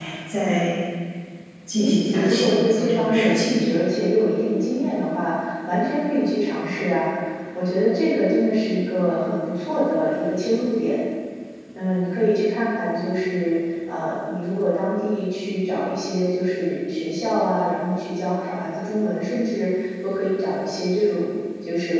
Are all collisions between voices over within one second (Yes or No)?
No